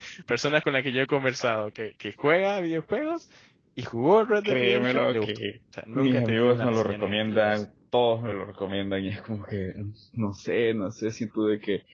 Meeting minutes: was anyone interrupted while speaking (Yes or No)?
Yes